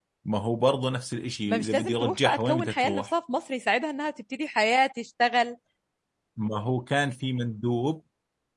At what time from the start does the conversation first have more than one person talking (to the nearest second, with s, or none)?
1 s